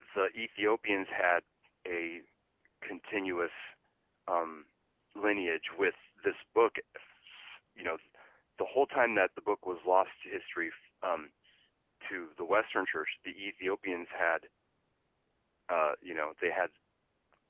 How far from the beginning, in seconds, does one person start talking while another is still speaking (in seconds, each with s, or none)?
none